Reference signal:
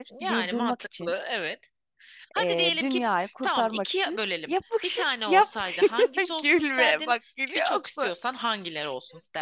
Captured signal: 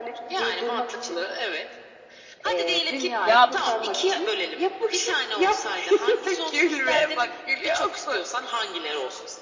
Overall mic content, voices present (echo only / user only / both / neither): both